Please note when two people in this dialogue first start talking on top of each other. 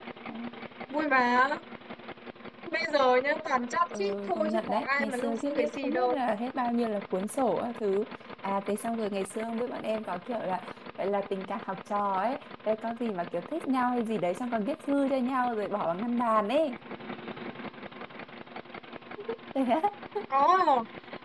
3.9 s

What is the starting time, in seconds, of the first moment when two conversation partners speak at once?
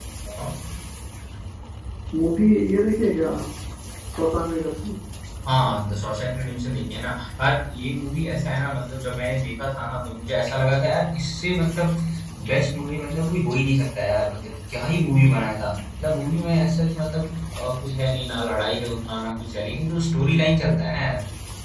none

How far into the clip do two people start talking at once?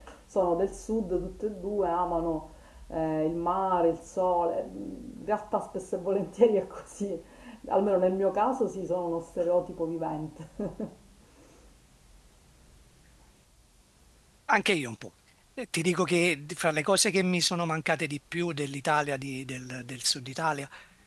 none

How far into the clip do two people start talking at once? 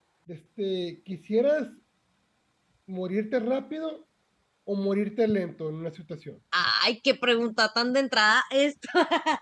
none

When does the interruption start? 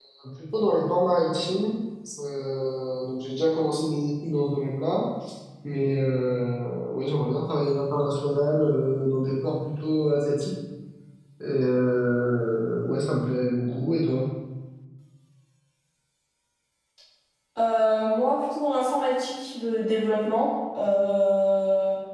none

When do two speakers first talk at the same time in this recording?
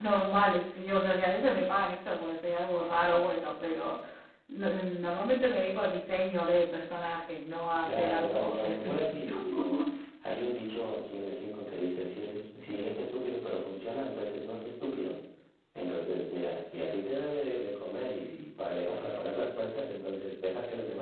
7.8 s

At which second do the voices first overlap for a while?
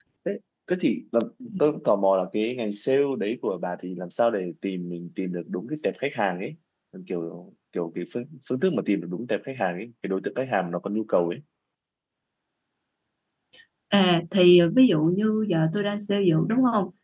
none

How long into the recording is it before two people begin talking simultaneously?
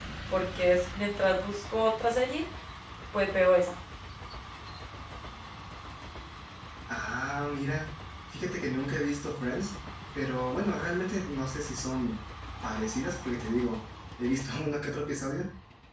none

